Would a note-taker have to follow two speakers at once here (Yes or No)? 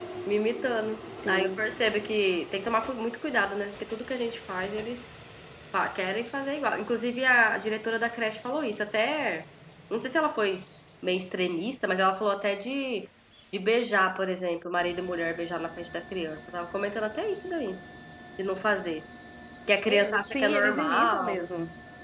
Yes